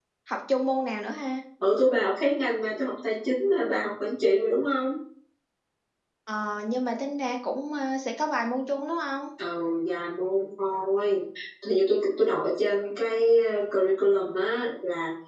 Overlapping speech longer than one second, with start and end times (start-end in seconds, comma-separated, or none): none